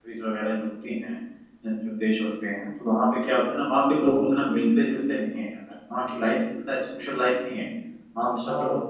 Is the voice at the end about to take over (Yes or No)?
No